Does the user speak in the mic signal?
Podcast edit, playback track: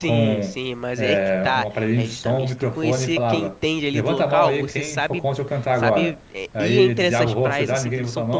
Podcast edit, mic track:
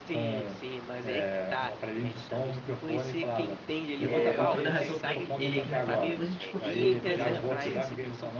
Yes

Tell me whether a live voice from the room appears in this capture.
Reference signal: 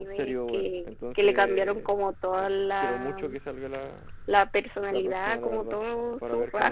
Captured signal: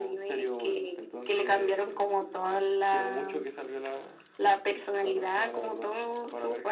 No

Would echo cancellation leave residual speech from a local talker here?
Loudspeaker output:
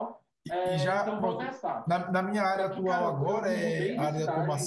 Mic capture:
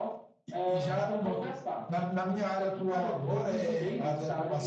No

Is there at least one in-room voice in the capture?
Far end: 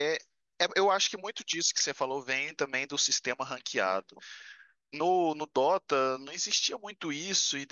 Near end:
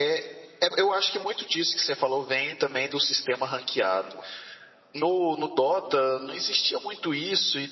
No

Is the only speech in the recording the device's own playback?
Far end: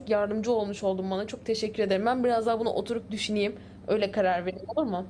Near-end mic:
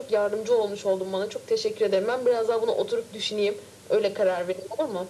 Yes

